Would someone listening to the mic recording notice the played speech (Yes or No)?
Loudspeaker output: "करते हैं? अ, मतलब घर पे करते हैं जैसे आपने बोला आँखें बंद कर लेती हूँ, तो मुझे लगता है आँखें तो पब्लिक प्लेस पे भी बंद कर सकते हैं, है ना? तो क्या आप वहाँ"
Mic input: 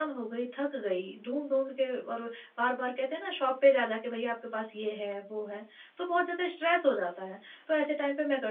No